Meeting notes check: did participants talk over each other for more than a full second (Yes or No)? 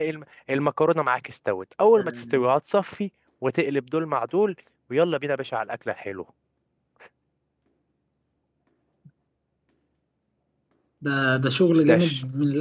No